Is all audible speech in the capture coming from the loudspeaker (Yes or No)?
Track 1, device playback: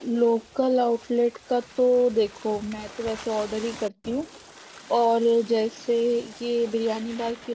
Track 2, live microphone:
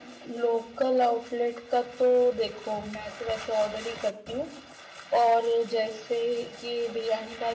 Yes